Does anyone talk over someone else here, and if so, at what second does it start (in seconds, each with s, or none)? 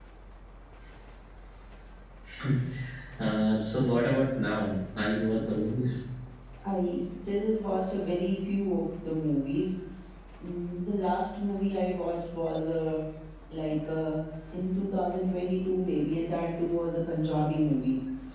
none